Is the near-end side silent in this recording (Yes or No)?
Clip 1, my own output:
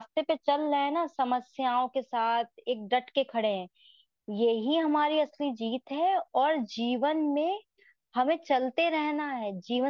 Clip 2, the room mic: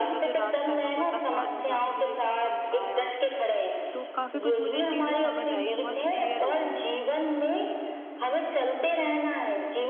No